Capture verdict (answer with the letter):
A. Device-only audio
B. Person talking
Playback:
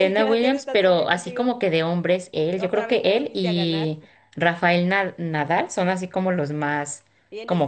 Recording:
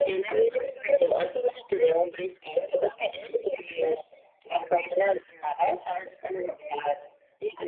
A